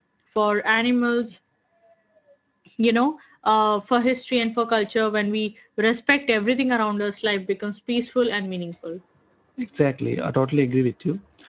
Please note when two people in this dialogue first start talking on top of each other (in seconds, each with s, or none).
none